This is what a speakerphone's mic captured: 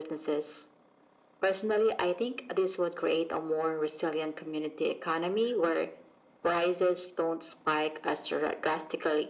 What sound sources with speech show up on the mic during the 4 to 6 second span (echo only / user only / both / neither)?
echo only